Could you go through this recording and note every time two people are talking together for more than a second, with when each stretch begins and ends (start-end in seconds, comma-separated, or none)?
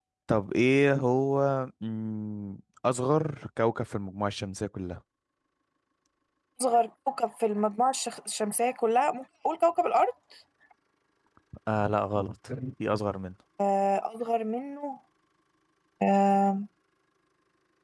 none